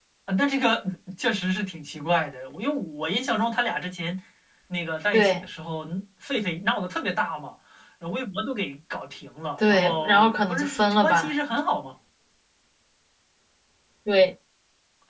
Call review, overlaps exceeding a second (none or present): present